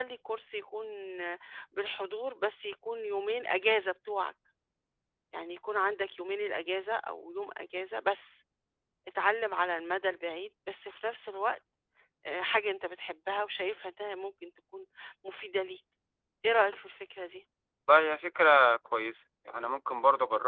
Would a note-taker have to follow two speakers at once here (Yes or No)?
No